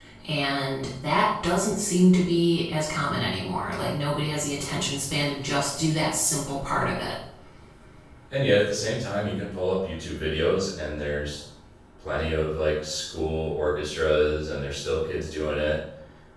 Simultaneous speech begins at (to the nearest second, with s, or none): none